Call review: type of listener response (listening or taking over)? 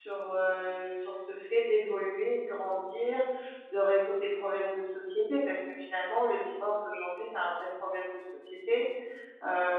listening